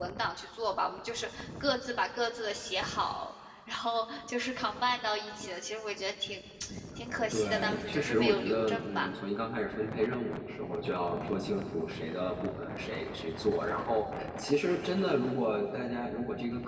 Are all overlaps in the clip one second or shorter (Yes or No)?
No